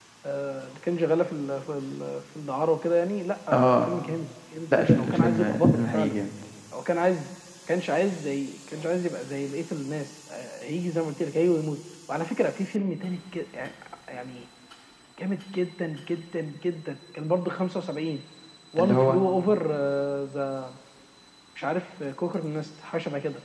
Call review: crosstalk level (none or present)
present